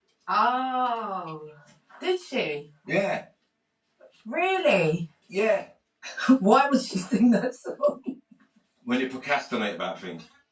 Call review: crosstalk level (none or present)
none